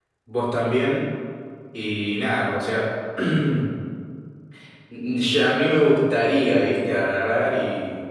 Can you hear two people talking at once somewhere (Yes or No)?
No